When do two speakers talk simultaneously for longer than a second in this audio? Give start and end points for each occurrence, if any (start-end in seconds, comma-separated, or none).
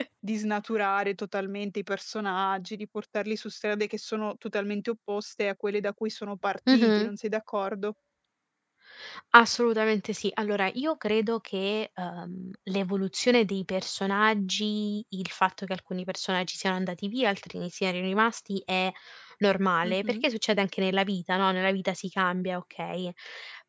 none